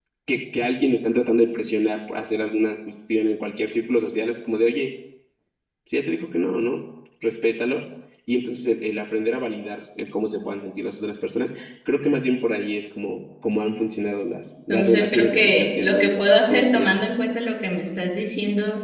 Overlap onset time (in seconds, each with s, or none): 14.7 s